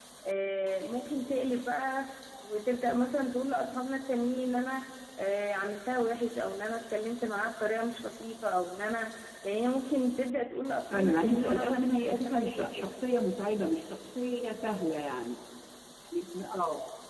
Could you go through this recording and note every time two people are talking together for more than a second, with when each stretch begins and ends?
10.9-12.9

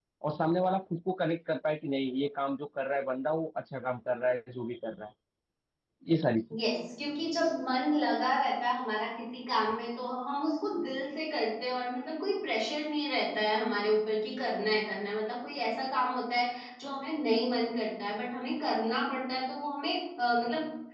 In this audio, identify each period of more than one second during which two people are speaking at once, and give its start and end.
none

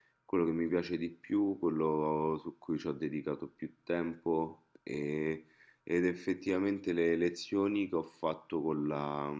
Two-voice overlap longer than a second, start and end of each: none

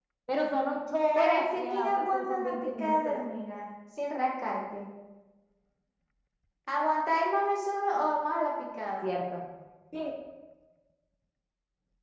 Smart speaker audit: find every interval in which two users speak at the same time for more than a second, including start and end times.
1.1-3.2

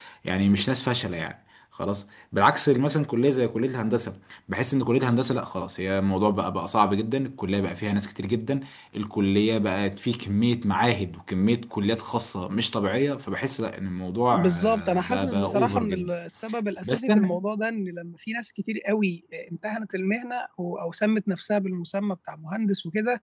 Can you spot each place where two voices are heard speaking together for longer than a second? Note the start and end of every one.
14.3-16.1

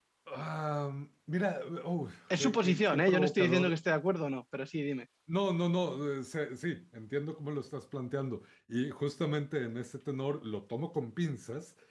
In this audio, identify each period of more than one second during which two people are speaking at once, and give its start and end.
2.4-3.8

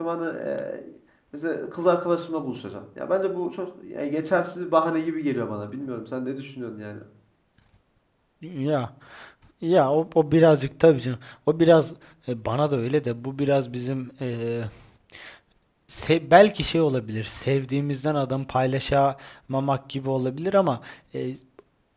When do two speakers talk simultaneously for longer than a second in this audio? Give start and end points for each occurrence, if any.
none

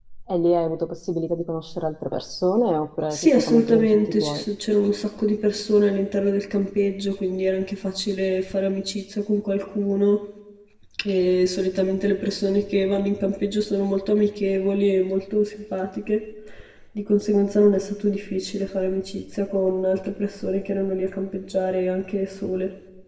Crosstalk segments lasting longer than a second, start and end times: 3.1-4.4

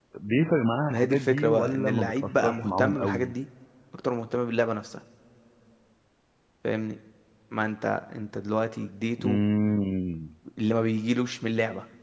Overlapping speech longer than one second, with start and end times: 0.9-3.3

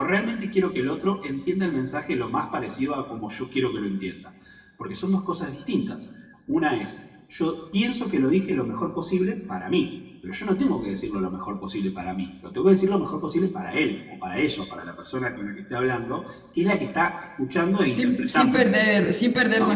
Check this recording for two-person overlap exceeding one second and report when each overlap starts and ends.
17.9-19.1

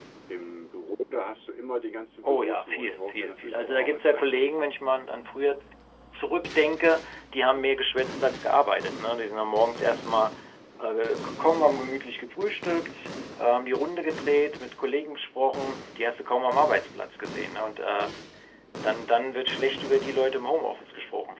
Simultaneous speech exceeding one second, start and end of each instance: 2.2-4.7

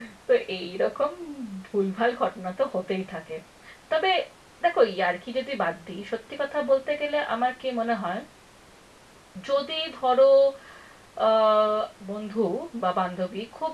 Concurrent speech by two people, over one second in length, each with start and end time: none

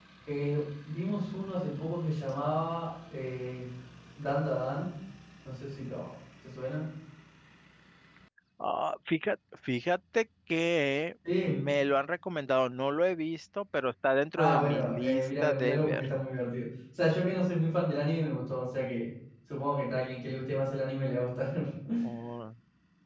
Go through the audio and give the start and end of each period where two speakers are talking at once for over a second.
14.4-16.1

